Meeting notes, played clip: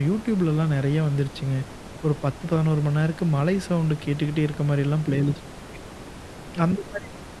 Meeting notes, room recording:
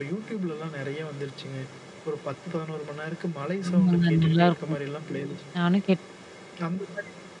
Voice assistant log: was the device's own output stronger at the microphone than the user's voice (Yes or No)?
No